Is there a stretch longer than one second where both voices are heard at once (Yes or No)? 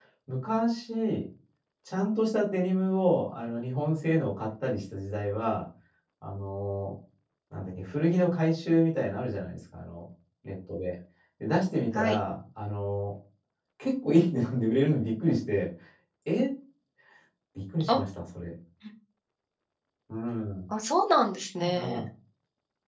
No